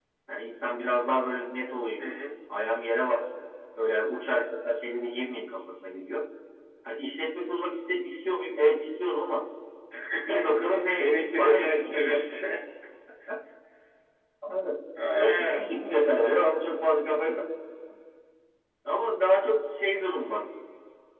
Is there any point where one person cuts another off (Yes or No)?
Yes